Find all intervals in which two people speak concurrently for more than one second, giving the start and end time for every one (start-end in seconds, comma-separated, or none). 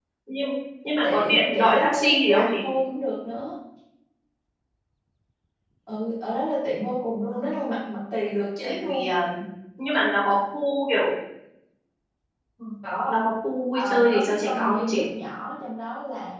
1.0-2.5, 13.8-15.0